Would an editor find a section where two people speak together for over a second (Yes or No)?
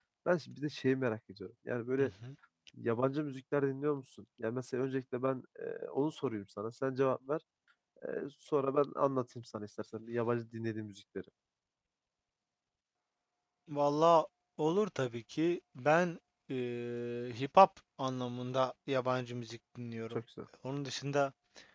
No